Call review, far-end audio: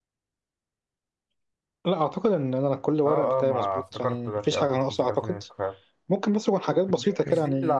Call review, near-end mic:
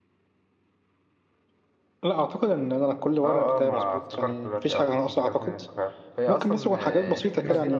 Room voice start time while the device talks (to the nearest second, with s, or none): 6 s